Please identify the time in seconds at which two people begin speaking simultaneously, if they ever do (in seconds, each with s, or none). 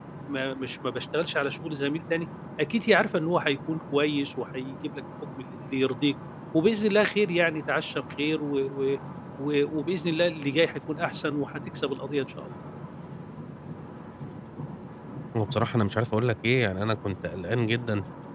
none